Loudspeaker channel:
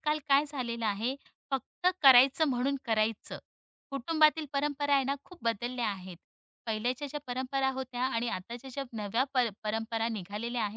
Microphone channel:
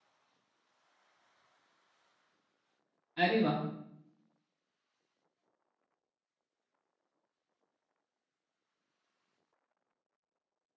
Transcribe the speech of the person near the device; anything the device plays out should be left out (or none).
अरे वा,